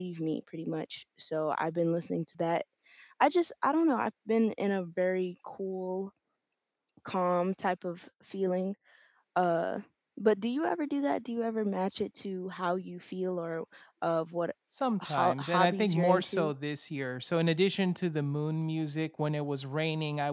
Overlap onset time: 15.0 s

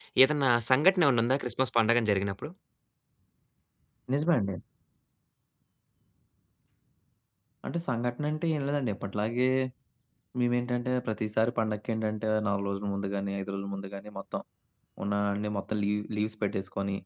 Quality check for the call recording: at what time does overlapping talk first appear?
none

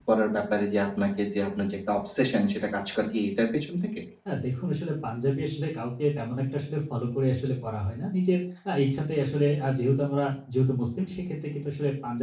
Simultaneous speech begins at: none

